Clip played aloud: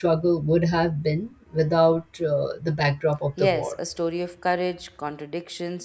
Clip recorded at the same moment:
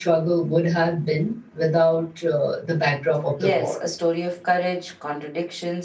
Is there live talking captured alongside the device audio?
No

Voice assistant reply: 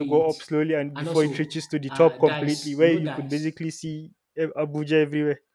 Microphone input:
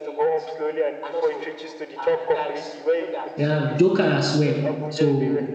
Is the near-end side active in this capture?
Yes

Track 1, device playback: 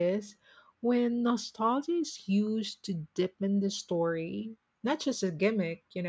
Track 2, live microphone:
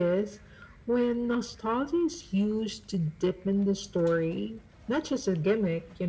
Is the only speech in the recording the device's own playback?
Yes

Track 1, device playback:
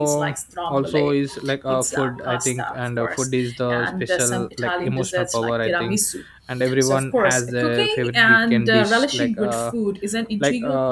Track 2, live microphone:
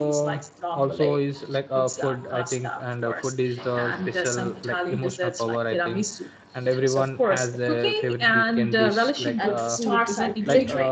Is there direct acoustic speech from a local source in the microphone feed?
Yes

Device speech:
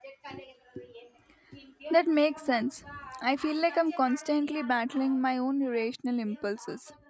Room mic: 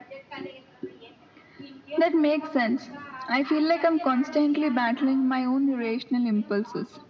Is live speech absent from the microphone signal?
Yes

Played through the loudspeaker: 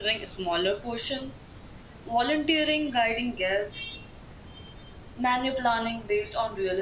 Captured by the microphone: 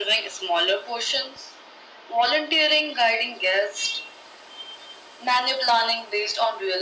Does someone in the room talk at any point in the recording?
No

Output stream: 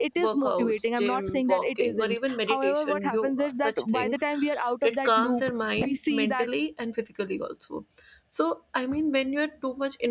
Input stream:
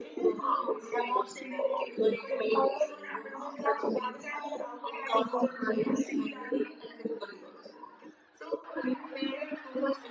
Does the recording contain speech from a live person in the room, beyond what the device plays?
No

